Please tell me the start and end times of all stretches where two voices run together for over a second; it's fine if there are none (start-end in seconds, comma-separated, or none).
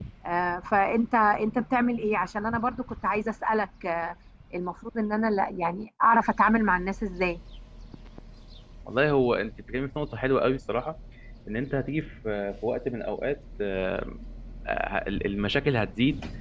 none